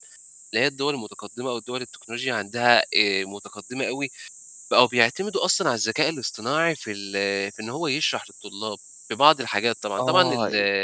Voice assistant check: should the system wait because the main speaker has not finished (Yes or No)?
No